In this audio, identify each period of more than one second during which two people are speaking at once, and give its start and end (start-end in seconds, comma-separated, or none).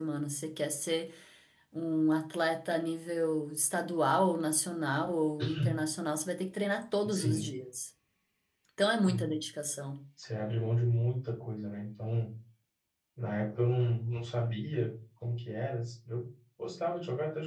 none